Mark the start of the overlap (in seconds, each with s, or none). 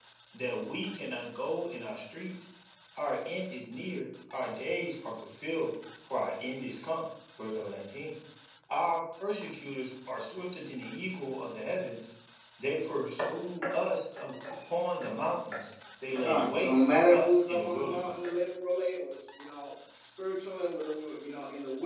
16.1 s